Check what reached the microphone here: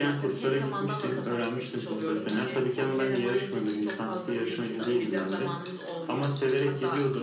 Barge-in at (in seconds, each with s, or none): none